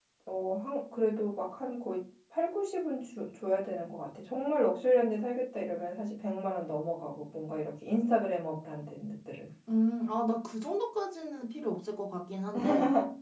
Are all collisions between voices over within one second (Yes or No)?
Yes